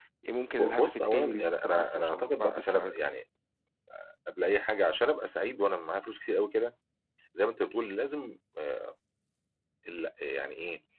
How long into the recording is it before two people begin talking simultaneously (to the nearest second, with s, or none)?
1 s